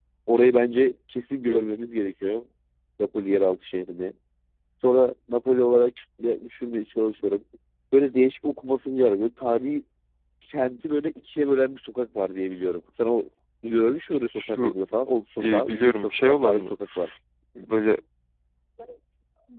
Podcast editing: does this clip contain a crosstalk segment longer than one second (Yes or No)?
Yes